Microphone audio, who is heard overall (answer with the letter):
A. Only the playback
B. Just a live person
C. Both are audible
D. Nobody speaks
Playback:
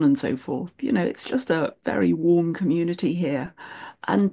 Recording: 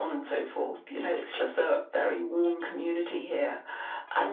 A